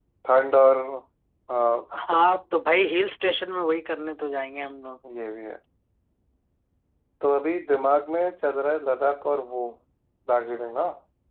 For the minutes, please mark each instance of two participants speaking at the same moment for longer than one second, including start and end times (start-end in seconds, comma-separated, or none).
none